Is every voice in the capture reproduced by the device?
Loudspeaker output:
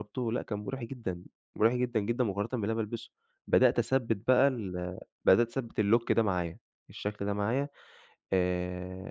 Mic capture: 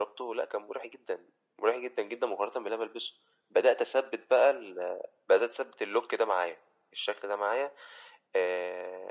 Yes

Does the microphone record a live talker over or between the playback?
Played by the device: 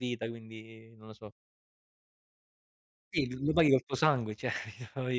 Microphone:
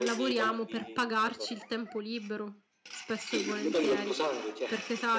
Yes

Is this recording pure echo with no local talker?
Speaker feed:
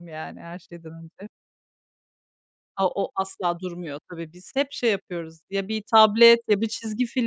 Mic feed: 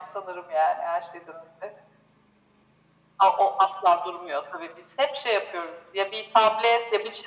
Yes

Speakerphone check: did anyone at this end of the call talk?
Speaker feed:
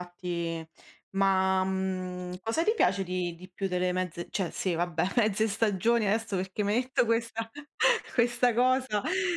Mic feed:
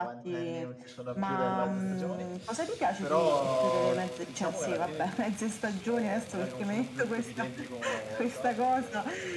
Yes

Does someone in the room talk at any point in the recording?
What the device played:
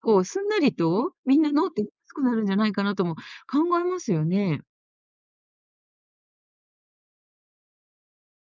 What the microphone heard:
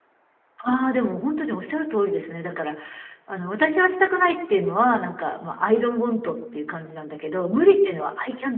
Yes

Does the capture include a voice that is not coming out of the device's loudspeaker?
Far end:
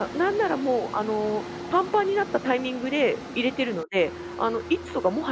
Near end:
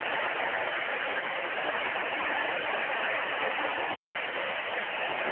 No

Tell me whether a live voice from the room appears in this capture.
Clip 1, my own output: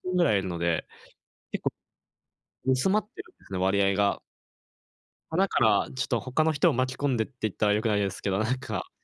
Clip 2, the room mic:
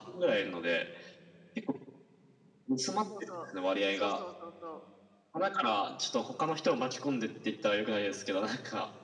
Yes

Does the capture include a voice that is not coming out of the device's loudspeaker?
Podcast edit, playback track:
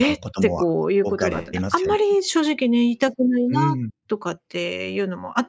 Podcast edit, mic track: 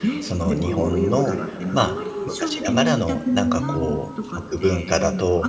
Yes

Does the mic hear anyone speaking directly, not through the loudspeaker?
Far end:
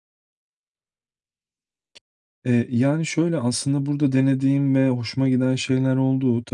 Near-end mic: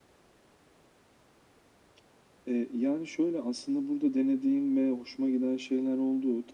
No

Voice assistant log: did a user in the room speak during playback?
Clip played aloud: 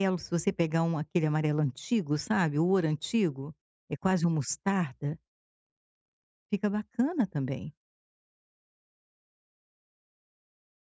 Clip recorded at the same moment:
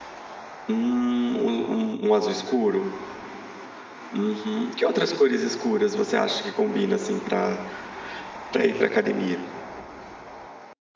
Yes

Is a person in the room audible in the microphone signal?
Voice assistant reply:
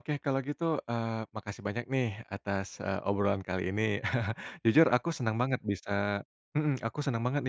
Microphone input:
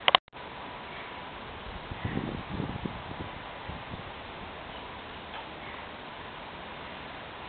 No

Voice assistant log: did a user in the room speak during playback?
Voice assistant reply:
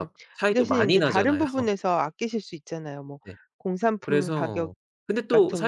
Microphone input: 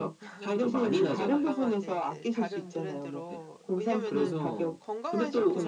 Yes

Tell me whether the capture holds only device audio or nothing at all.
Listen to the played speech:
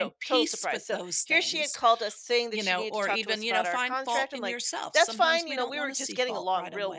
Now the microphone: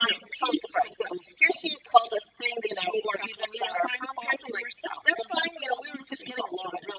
Yes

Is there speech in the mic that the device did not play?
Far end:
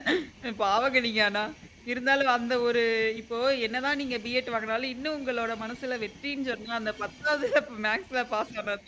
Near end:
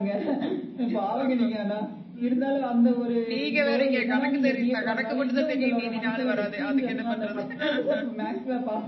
Yes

